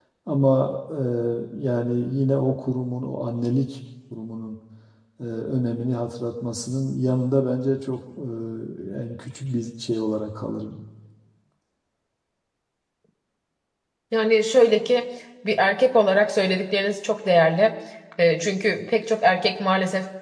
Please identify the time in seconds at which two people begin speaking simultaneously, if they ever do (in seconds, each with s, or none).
none